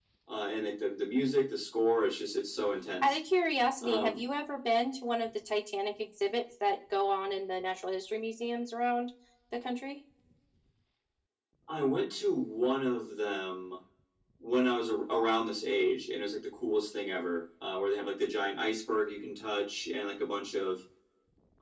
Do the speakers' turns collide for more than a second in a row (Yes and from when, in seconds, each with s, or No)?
No